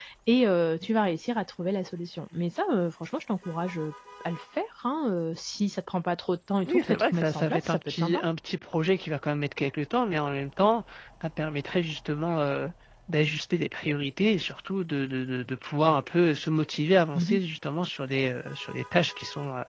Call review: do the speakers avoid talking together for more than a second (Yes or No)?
No